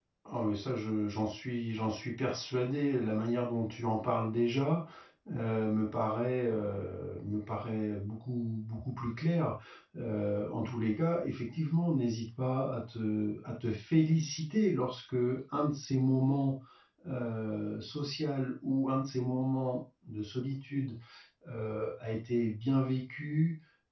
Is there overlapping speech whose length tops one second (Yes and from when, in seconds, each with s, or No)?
No